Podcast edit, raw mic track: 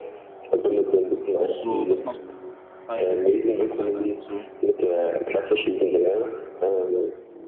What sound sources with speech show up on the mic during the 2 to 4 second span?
both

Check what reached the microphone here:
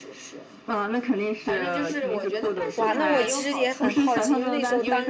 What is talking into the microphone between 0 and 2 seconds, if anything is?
echo only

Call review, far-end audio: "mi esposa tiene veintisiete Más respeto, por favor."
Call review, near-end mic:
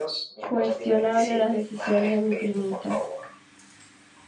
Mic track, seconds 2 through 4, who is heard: both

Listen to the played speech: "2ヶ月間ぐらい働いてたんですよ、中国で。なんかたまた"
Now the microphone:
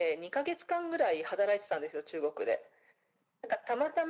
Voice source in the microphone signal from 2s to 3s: echo only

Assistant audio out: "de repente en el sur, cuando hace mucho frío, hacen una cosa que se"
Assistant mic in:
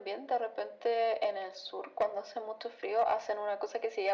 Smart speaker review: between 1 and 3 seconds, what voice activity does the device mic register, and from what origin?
echo only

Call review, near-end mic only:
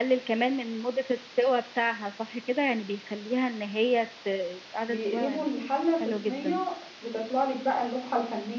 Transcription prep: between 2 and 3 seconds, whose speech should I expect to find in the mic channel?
echo only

